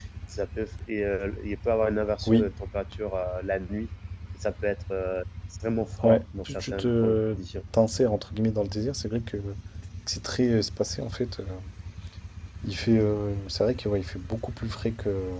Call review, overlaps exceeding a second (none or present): present